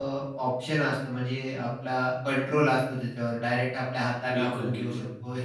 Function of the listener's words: listening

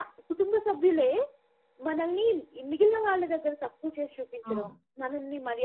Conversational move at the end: listening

